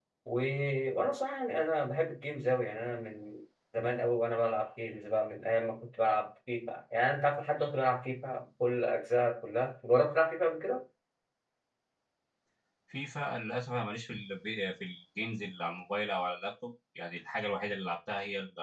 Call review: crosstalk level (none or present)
none